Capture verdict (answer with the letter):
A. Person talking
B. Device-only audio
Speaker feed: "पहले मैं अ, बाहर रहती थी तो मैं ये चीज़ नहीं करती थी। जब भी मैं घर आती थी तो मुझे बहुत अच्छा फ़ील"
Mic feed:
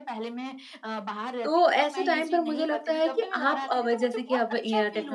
A